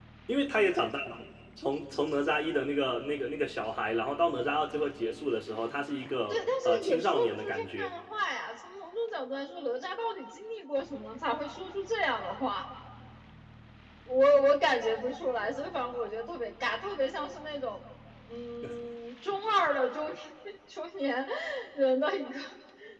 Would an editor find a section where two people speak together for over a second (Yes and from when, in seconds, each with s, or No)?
Yes, from 6.3 s